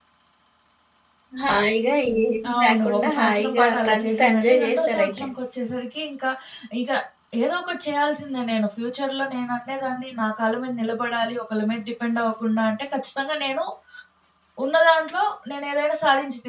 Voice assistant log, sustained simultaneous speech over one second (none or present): present